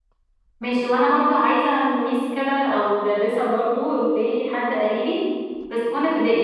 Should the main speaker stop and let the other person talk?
No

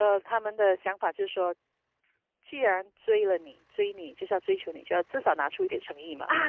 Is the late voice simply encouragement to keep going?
No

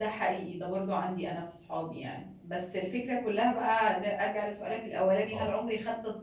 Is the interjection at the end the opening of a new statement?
No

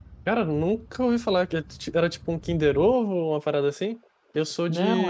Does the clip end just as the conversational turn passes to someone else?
No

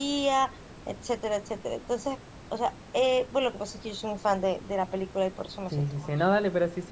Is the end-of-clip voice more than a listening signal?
Yes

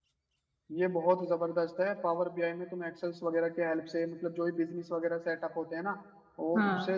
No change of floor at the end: Yes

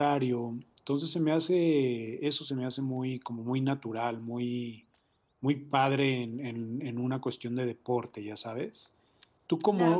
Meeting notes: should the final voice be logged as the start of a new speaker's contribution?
Yes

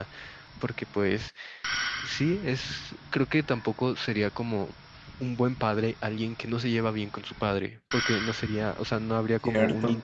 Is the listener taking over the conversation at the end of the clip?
No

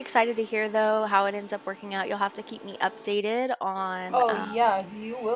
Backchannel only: No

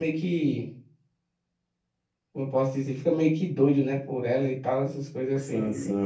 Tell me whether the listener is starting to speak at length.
Yes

